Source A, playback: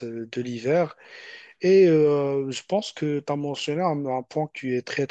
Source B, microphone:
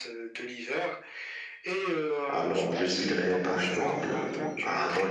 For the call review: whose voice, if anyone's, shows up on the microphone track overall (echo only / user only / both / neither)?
both